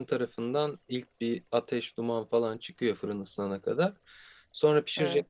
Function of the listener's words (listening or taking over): listening